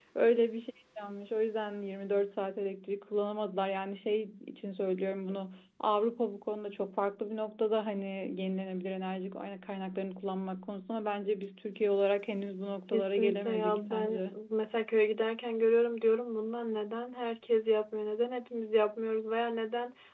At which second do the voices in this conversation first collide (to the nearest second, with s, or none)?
13 s